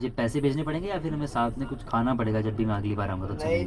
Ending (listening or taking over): taking over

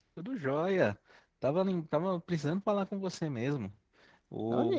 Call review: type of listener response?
listening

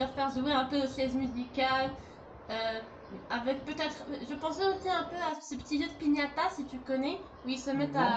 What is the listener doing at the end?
listening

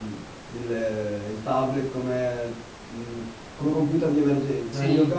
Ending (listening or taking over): listening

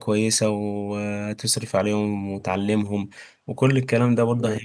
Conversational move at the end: listening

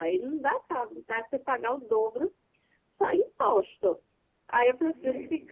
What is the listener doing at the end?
listening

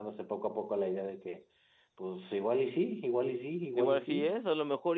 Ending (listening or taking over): taking over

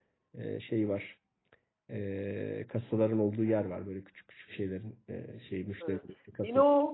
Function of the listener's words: taking over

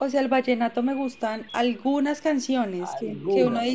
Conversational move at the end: listening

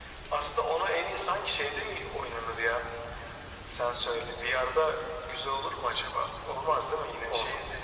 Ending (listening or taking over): taking over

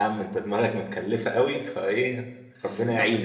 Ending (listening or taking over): taking over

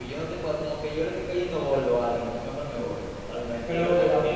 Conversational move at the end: taking over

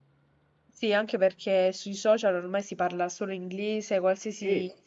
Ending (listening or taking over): listening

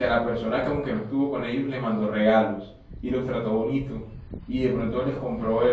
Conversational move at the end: listening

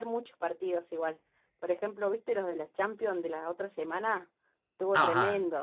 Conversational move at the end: taking over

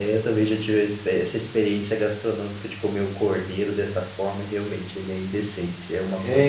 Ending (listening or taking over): taking over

